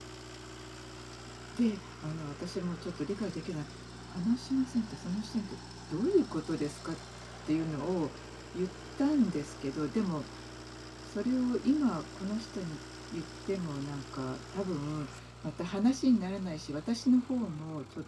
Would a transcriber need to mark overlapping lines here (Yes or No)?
No